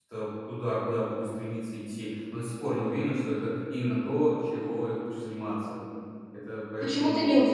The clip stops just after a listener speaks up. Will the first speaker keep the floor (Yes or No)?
No